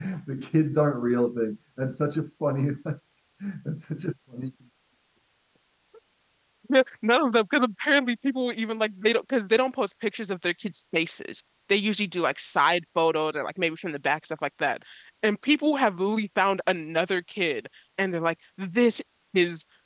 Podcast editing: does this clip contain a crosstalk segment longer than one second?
No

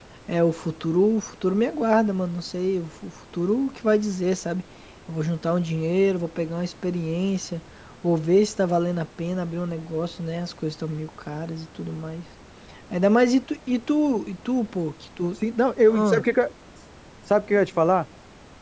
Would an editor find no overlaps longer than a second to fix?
Yes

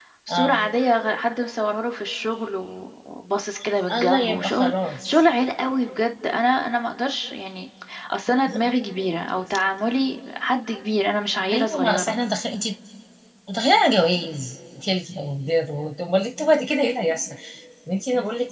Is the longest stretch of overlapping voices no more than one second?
No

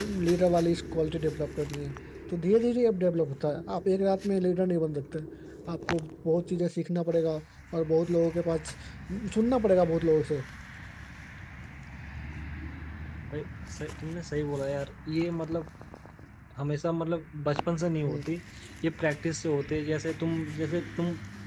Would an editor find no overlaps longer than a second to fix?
Yes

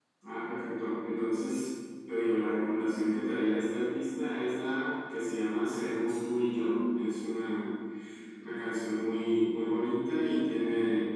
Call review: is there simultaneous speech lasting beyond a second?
No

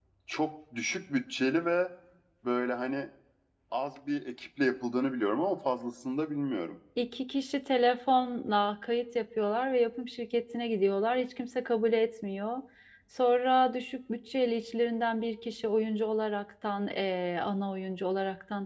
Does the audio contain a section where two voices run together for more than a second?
No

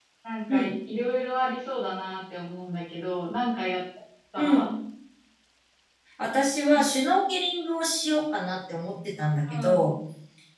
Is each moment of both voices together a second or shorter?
Yes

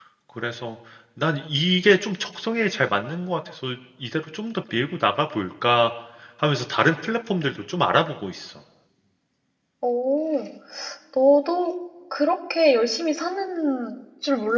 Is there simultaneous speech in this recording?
No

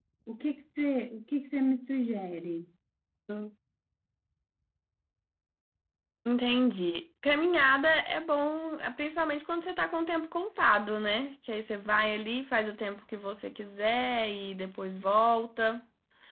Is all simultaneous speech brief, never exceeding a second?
Yes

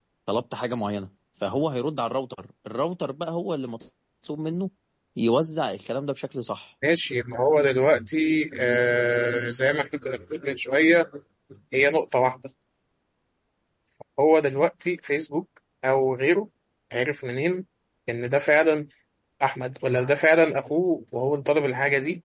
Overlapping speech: No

